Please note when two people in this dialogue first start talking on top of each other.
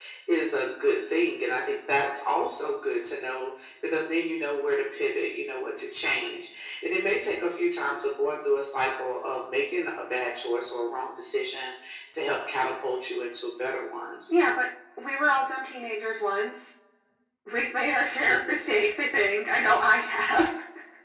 none

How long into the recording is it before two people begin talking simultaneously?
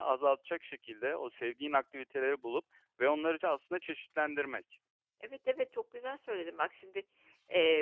none

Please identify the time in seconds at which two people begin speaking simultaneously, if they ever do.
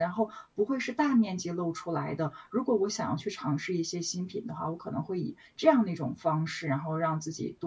none

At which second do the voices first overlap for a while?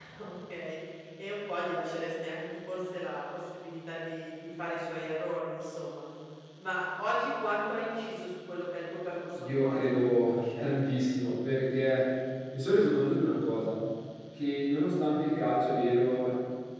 9.3 s

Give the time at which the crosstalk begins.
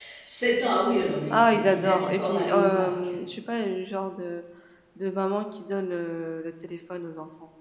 1.3 s

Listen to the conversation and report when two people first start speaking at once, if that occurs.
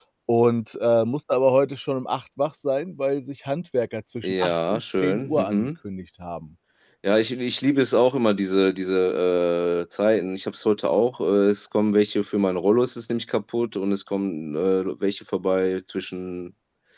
4.2 s

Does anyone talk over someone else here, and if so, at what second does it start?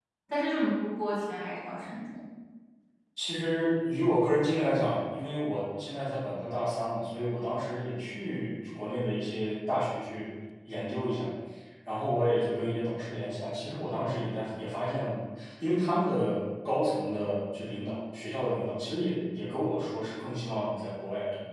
none

